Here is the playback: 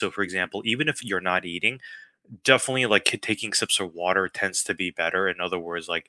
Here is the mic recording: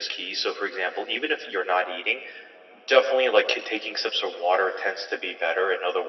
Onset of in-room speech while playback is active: none

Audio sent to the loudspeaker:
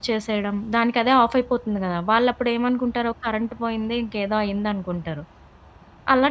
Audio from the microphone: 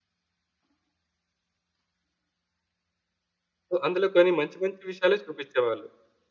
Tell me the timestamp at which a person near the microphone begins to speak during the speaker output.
3.7 s

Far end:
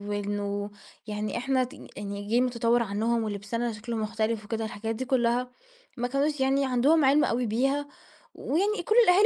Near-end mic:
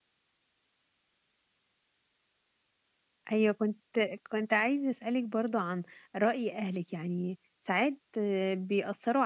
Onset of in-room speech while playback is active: 3.3 s

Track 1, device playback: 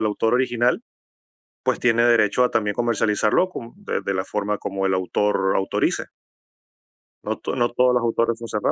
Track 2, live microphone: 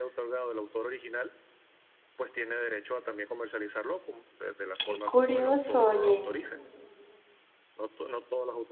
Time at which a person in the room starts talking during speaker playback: 4.8 s

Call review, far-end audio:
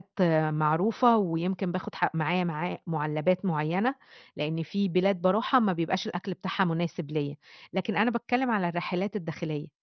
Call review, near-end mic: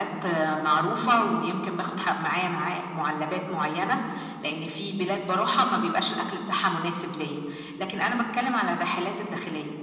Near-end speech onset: none

